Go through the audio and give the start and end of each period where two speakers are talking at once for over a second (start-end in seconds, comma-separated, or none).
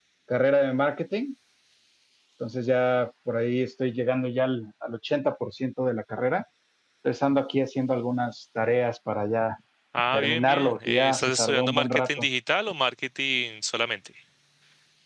10.1-12.3